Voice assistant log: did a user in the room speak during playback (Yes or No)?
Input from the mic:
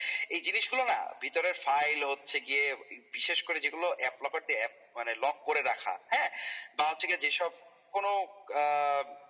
No